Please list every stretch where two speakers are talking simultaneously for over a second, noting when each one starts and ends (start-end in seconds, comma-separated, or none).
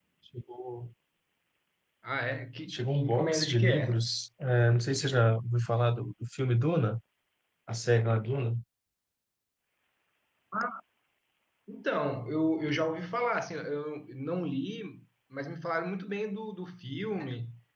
2.7-4.0